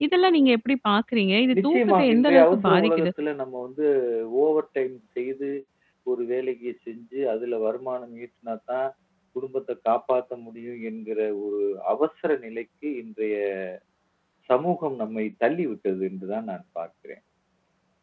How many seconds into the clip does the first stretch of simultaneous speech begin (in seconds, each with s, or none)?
1.5 s